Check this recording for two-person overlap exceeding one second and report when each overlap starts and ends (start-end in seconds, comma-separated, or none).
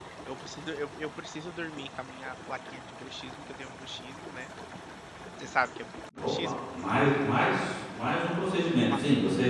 none